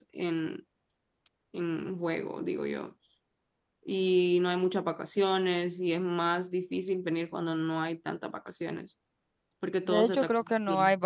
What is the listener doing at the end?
taking over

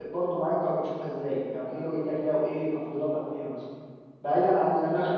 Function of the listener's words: listening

